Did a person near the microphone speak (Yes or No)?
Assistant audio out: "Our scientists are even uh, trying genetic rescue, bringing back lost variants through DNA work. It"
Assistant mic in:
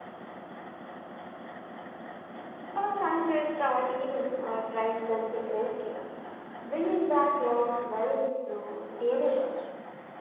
No